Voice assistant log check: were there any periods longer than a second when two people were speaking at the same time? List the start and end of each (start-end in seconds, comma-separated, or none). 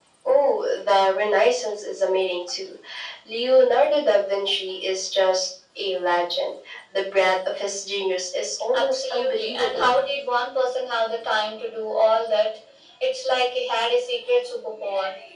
8.7-9.9